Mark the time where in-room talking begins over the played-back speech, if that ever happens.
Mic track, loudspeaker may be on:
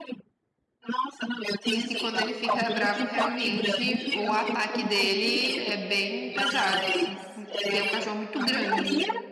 1.7 s

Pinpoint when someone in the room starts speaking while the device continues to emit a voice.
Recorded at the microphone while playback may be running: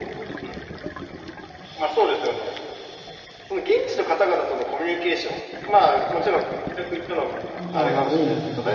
7.5 s

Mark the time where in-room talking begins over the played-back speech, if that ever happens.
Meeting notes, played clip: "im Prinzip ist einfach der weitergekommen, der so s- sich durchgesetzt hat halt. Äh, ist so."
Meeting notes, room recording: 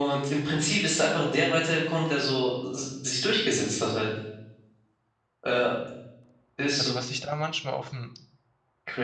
6.8 s

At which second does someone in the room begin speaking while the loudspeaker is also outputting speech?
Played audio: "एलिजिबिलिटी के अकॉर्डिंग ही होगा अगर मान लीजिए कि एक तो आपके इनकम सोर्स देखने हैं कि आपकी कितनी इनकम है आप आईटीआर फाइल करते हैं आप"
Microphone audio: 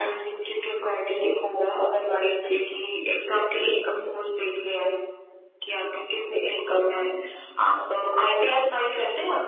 6.8 s

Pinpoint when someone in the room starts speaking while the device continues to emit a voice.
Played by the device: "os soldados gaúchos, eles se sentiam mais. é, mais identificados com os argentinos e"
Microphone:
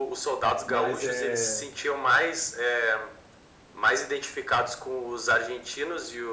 0.6 s

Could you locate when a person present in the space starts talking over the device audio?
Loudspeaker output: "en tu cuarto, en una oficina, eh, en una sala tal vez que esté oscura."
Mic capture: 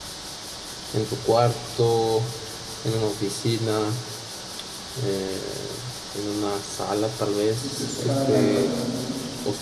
7.6 s

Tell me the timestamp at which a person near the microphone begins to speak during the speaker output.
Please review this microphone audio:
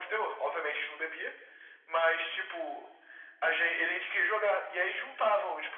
none

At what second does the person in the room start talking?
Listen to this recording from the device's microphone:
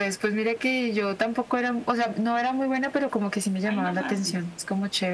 3.6 s

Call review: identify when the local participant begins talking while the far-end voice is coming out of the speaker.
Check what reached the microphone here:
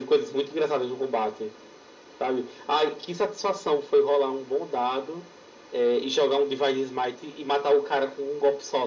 none

